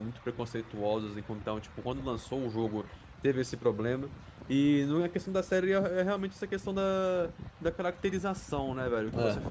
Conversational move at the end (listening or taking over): listening